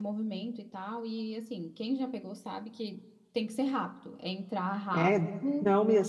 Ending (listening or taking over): taking over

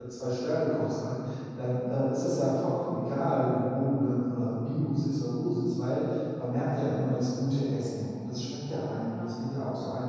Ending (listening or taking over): listening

